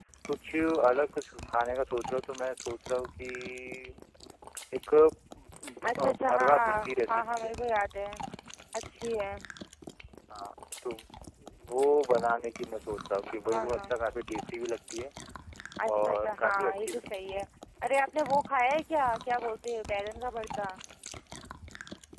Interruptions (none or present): present